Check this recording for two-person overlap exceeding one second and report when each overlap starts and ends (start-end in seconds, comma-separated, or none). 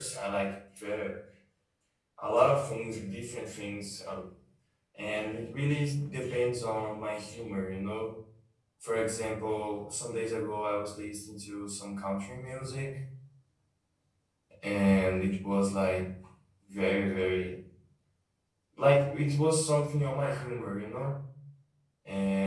none